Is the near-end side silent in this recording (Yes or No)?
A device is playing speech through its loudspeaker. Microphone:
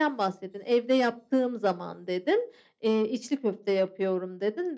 Yes